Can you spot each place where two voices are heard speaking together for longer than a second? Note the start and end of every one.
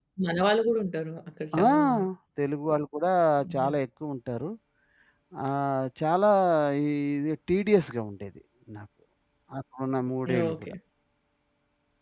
none

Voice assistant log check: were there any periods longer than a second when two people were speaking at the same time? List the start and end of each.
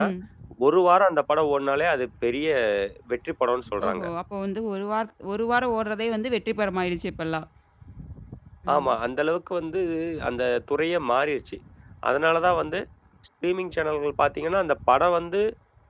none

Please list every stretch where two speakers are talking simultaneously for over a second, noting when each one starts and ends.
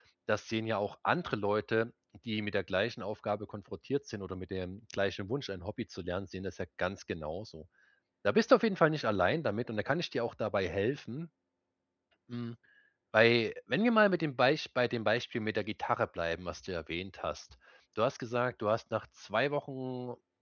none

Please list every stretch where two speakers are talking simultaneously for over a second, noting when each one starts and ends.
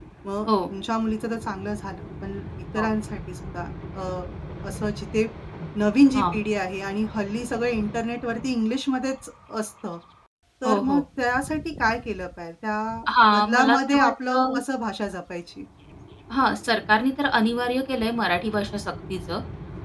13.3-14.6

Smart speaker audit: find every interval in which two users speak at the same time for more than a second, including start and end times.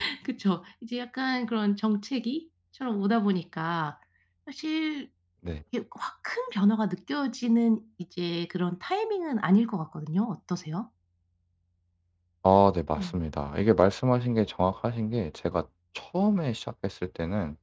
none

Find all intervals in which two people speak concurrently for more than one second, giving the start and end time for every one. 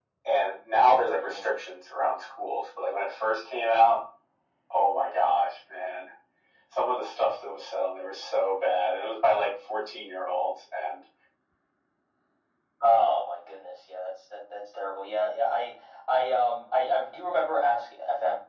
none

